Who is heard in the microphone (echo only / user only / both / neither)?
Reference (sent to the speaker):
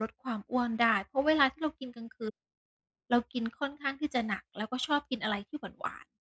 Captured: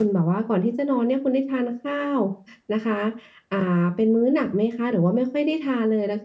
user only